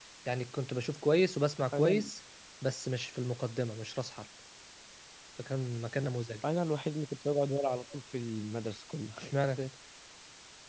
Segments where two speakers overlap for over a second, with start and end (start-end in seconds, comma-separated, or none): none